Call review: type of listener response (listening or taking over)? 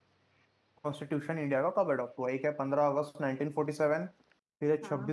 listening